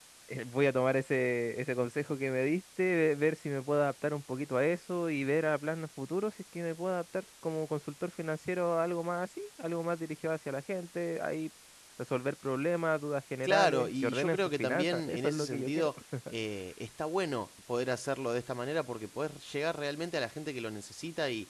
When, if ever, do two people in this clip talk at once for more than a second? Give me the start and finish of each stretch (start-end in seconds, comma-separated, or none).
13.4-15.9